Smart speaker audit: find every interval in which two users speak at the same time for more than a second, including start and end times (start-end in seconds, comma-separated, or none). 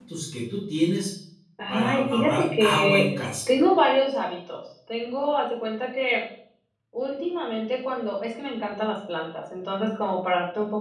1.7-3.0